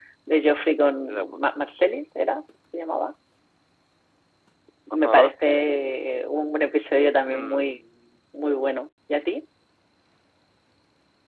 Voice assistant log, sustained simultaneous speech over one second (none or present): none